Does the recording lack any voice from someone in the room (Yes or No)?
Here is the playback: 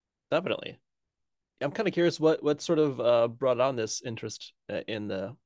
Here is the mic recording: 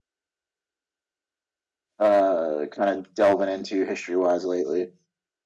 No